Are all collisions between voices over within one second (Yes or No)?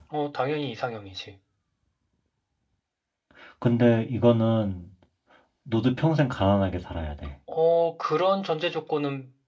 Yes